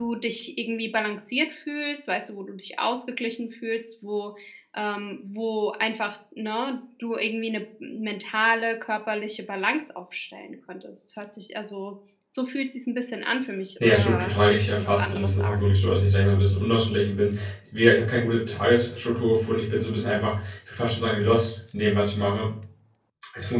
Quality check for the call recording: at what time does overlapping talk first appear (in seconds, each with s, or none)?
13.8 s